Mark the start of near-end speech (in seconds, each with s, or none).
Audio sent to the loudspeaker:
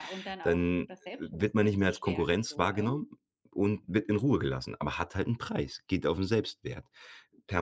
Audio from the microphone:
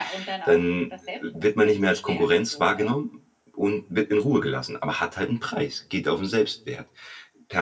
none